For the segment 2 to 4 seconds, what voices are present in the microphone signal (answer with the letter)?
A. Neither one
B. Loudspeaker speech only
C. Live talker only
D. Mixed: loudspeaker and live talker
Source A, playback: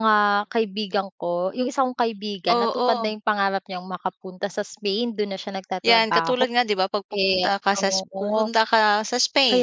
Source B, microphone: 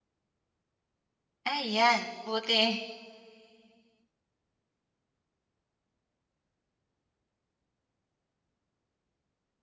C